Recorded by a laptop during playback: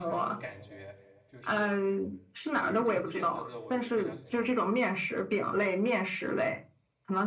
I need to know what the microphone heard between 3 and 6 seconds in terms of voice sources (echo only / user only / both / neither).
both